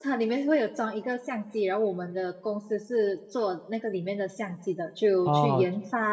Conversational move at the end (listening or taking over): listening